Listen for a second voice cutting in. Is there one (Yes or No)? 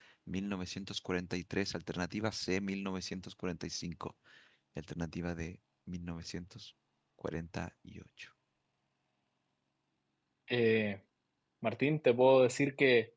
No